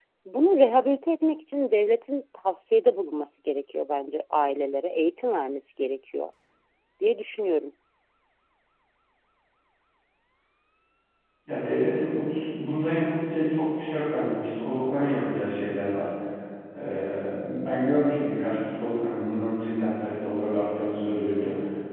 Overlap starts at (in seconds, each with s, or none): none